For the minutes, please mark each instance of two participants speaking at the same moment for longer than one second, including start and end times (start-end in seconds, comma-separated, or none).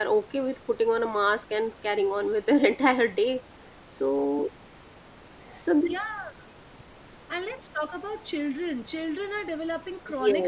none